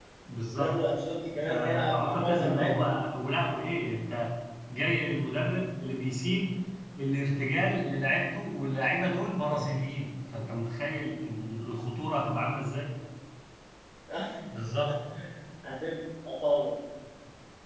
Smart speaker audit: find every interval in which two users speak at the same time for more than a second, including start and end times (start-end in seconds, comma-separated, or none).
1.4-3.0